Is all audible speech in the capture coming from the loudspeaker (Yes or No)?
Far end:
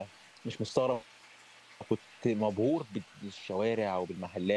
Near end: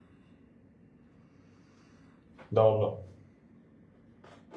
No